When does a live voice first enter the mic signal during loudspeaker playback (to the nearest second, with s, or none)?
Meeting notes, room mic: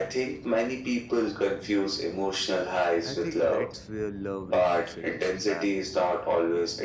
3 s